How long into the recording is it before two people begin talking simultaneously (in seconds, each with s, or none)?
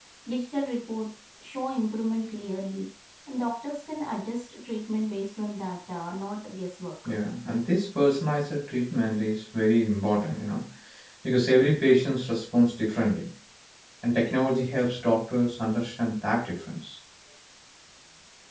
none